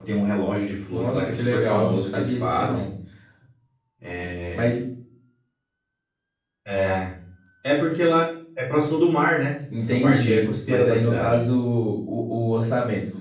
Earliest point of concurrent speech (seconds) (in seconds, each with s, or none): 0.9 s